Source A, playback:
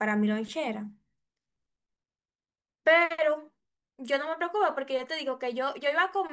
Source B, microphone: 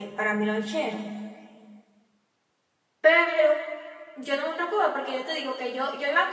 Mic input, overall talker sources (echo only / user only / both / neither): echo only